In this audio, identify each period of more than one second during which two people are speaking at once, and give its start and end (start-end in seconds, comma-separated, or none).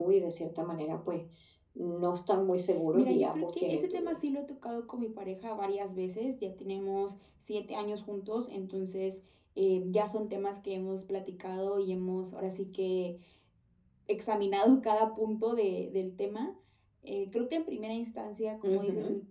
2.9-4.2